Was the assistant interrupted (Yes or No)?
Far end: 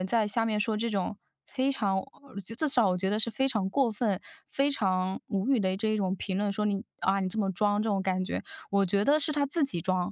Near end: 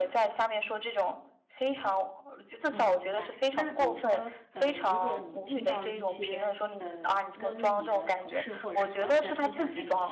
Yes